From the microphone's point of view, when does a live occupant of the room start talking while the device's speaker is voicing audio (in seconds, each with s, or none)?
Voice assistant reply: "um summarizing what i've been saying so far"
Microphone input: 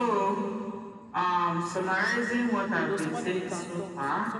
2.8 s